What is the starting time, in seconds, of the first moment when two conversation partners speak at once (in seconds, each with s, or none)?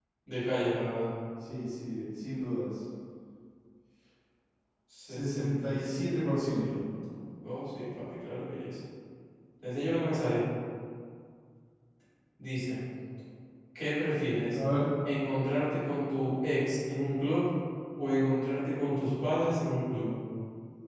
5.1 s